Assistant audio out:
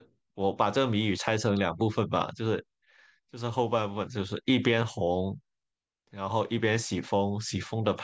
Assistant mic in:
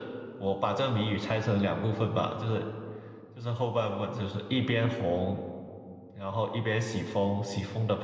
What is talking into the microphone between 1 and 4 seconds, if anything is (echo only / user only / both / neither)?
echo only